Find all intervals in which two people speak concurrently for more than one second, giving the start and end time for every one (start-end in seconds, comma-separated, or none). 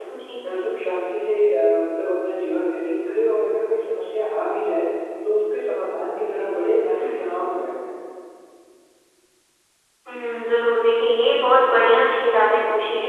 none